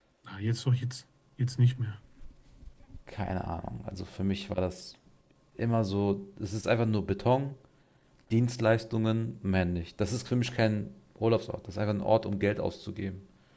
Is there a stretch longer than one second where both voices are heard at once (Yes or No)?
No